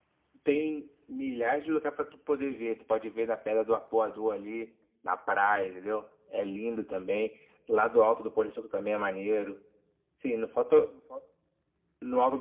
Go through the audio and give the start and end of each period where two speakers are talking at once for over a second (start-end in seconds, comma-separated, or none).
none